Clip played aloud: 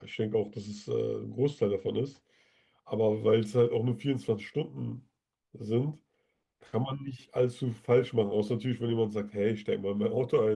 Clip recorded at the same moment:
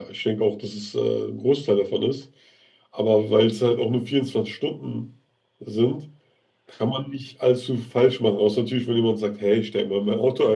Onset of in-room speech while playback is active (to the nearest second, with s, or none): none